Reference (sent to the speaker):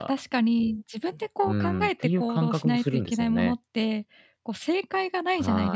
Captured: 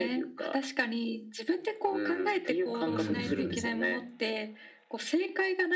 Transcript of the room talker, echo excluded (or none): うんうん。